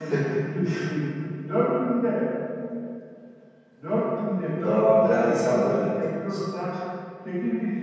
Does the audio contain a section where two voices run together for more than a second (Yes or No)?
Yes